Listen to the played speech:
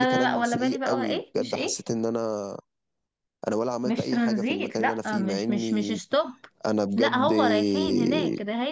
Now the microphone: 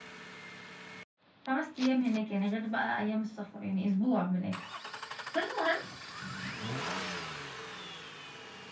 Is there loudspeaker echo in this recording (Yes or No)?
No